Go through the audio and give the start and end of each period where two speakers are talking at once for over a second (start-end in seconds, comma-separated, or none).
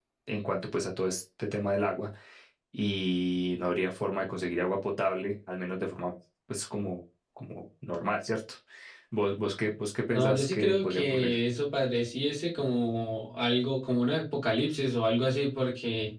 10.1-11.4